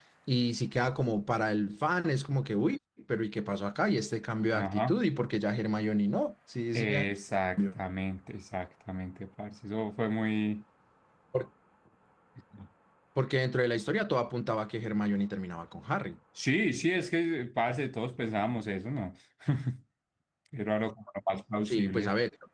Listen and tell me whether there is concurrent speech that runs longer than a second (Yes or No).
No